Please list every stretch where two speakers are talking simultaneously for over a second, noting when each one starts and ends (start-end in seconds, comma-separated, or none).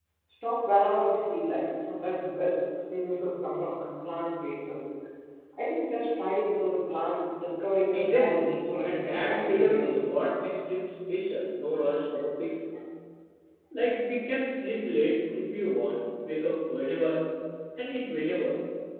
7.9-10.3